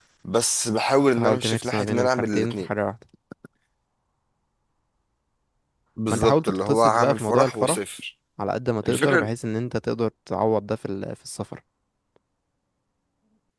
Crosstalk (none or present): present